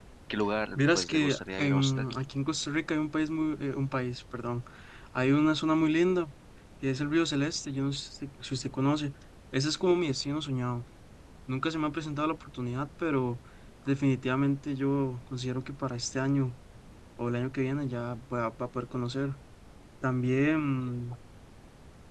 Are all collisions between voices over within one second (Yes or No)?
No